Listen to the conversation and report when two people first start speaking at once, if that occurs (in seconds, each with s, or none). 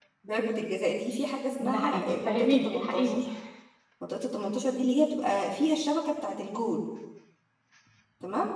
1.6 s